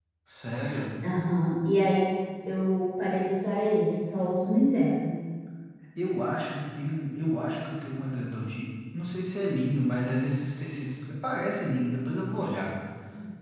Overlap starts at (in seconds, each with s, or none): none